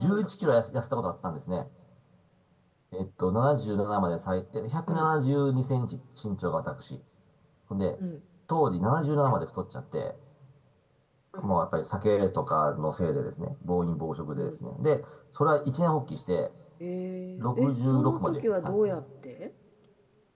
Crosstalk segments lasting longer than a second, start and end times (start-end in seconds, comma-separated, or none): 17.4-18.9